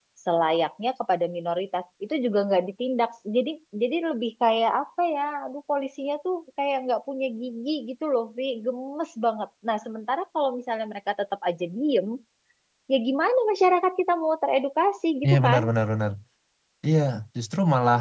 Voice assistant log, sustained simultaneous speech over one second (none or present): none